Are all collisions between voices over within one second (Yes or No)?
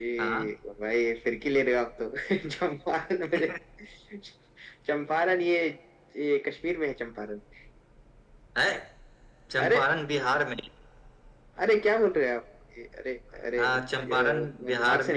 No